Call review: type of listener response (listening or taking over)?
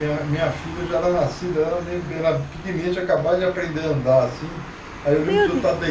listening